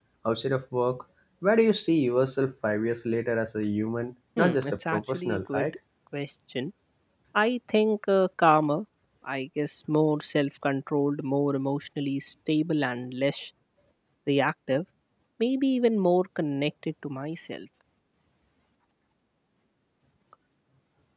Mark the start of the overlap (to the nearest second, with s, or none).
4 s